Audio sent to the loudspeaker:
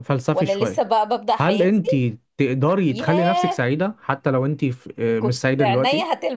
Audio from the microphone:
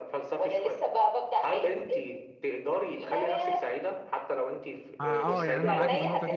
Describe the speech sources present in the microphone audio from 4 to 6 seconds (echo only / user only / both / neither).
both